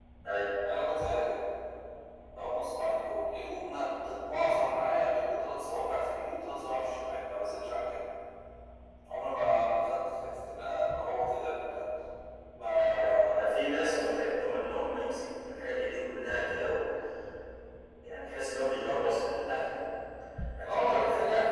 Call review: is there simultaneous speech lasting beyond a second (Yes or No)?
Yes